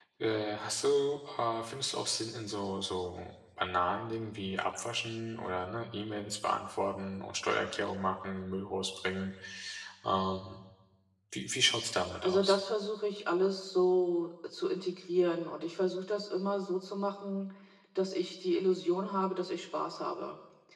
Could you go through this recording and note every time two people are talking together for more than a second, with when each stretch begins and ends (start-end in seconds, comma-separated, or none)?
none